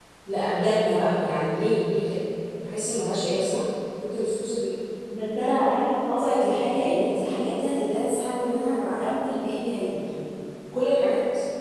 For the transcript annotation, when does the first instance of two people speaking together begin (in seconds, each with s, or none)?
none